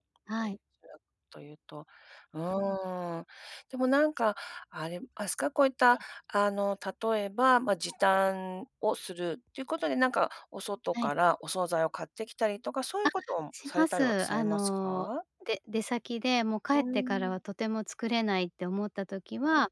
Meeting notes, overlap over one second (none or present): present